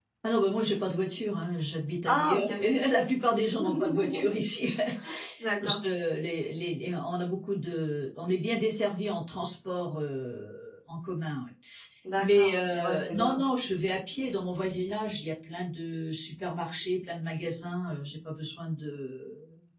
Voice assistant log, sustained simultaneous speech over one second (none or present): present